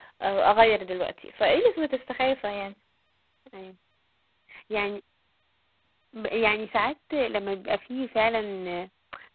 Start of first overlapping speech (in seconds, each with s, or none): none